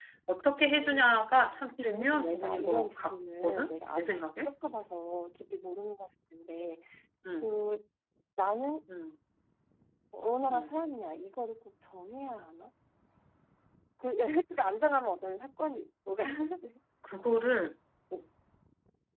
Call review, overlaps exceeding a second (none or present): present